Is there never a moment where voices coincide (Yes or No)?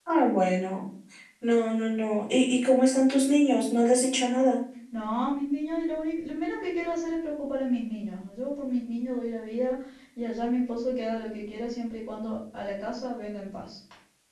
Yes